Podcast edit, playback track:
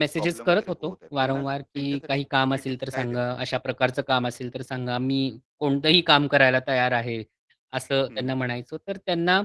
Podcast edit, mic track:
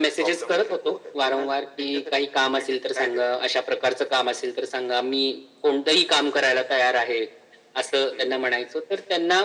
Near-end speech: none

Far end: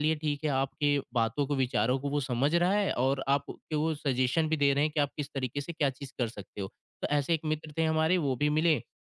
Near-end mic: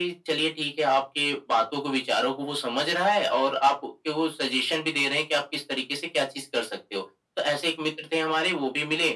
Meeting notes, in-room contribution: none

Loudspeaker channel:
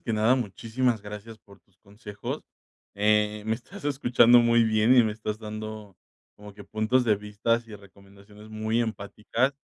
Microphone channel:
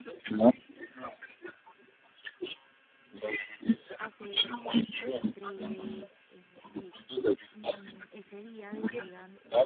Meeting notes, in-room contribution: present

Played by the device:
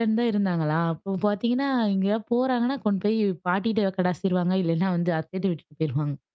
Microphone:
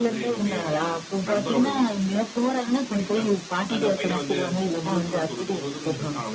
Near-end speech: present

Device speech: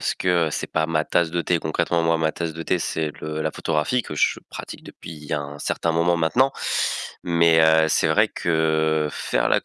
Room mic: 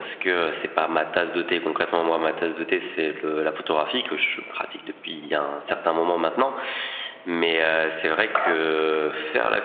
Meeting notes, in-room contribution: none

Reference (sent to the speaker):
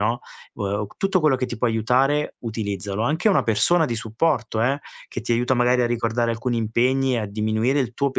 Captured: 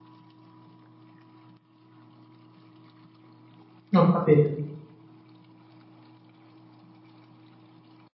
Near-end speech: present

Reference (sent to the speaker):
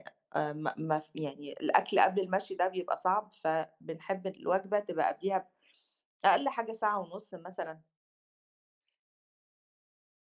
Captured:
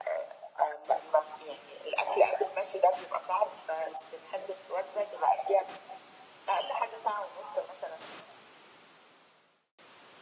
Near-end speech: none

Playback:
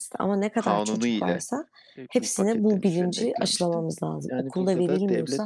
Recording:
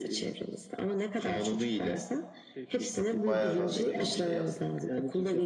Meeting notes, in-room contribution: present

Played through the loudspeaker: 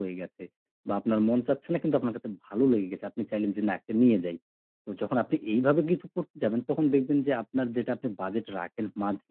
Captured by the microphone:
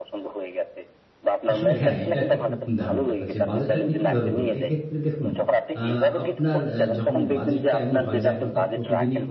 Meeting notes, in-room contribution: present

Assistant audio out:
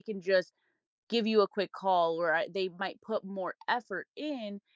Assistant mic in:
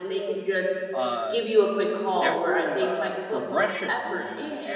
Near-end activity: present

